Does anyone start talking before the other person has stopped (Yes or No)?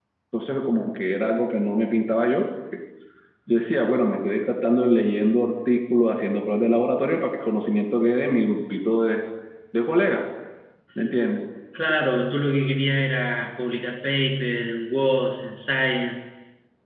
No